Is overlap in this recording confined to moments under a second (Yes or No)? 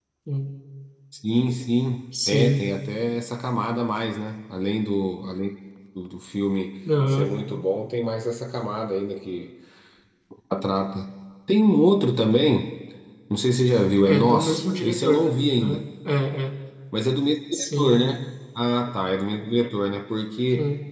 No